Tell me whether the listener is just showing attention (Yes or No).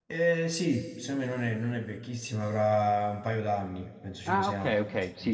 No